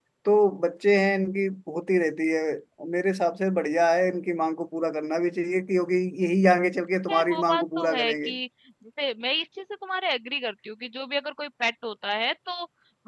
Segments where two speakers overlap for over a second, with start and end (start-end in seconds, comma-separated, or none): 7.1-8.3